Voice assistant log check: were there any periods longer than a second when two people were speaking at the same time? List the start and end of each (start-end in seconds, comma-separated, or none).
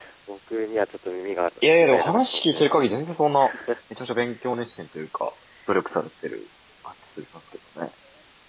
1.8-3.2